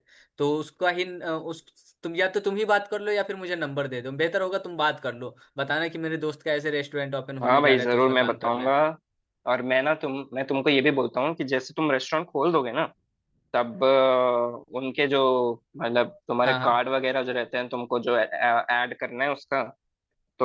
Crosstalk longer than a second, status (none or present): present